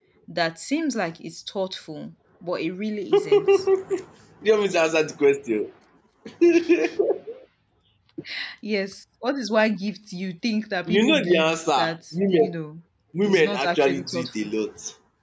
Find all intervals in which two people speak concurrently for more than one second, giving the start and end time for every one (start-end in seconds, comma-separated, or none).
10.9-12.5, 13.2-14.5